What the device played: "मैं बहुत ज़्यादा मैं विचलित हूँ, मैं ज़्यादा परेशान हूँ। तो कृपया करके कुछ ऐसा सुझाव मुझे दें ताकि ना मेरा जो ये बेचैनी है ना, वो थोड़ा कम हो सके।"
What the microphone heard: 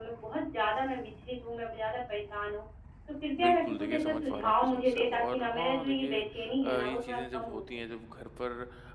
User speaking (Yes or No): Yes